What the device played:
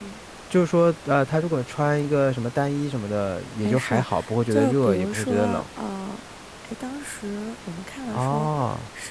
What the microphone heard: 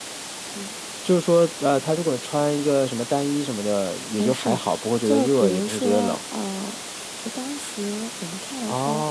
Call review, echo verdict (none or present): present